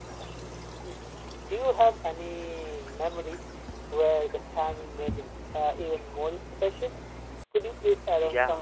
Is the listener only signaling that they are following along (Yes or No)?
No